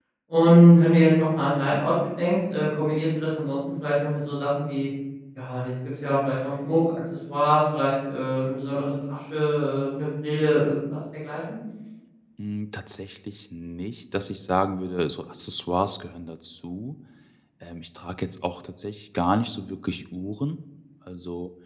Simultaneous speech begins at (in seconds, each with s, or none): none